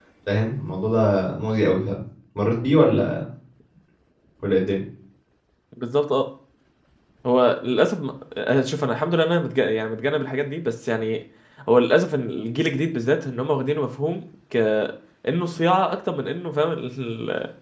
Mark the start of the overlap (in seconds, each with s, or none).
none